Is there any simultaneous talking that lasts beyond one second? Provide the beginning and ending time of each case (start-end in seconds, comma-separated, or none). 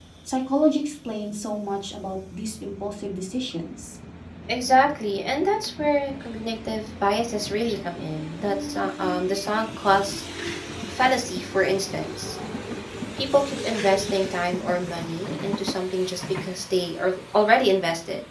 none